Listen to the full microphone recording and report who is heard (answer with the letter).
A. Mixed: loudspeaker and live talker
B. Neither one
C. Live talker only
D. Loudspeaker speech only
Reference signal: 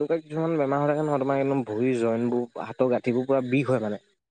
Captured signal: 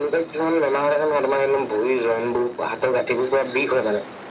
D